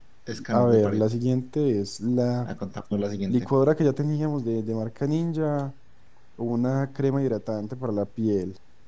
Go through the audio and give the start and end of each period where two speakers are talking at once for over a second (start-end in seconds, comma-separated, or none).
none